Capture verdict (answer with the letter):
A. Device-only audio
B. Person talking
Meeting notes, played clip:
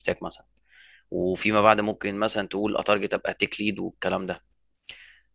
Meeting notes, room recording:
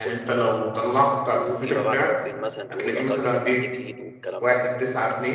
B